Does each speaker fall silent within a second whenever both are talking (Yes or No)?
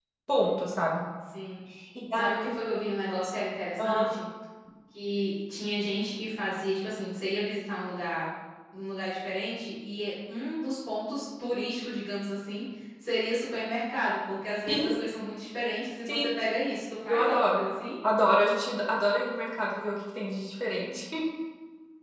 Yes